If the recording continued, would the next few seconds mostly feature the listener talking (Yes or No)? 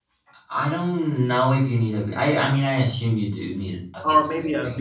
Yes